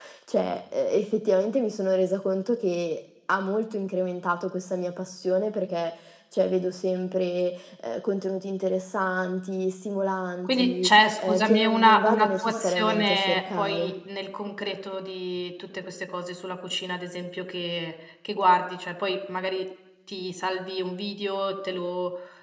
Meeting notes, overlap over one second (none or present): present